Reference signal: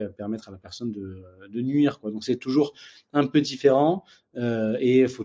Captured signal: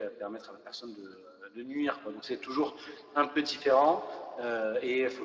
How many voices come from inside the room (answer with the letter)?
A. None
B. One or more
A